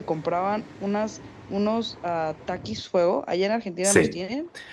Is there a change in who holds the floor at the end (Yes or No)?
Yes